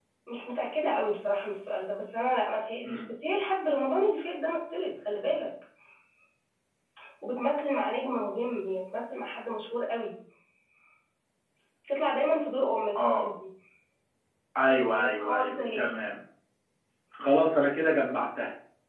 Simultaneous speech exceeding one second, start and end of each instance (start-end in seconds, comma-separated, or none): 14.6-15.9